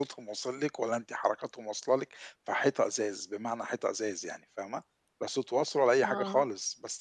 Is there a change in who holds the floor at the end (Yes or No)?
No